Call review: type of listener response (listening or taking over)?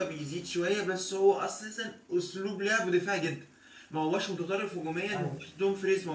listening